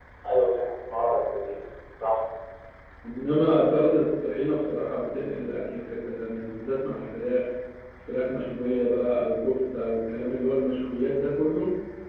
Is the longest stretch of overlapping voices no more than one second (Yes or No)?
Yes